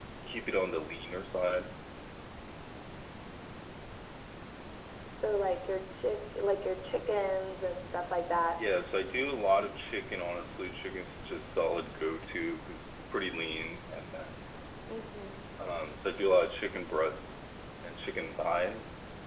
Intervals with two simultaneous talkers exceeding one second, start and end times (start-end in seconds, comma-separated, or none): none